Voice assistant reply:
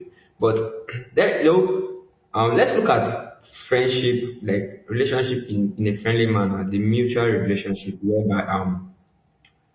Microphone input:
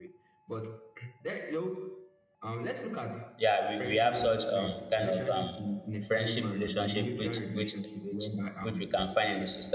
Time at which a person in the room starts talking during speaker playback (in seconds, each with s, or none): 3.4 s